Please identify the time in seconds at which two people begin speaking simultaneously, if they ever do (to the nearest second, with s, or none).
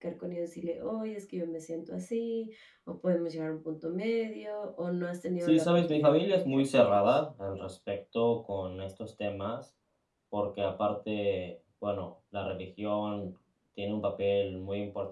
5 s